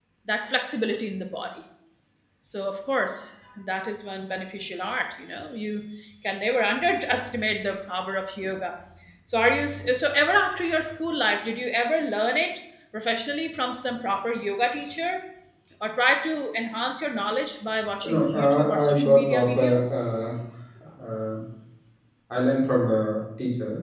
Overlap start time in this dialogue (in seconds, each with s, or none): 18.0 s